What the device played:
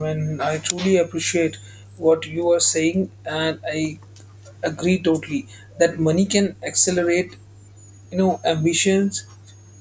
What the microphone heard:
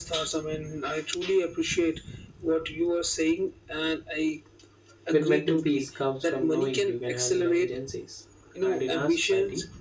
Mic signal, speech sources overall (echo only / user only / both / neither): both